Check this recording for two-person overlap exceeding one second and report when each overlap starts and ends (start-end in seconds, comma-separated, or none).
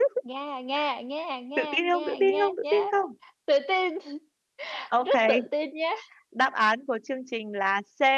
1.6-2.8